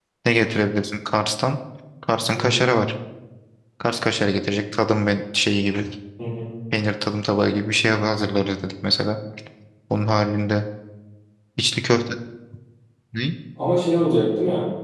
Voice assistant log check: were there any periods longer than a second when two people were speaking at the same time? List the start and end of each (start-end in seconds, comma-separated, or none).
none